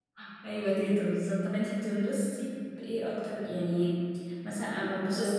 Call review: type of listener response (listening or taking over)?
listening